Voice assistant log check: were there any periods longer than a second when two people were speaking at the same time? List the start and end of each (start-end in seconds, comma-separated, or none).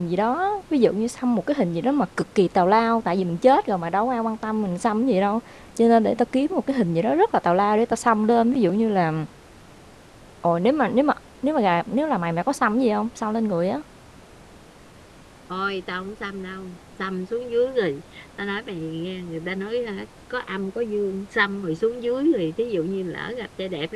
none